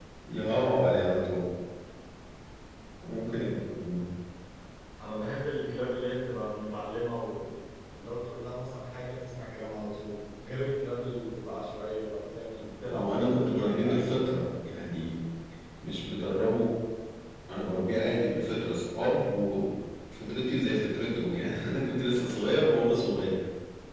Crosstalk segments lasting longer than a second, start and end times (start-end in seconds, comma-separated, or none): 12.9-14.2